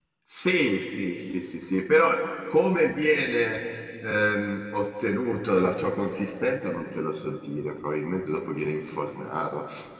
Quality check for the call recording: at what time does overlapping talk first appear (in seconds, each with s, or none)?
none